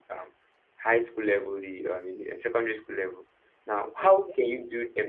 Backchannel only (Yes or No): Yes